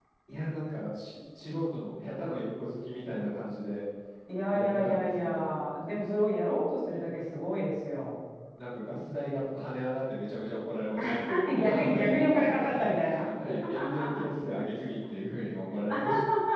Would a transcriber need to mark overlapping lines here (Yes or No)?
Yes